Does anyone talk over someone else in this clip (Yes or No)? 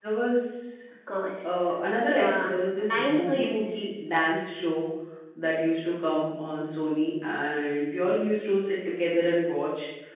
Yes